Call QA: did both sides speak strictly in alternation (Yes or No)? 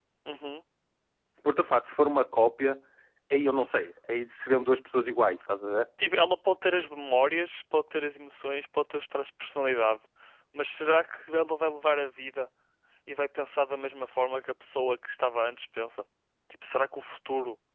Yes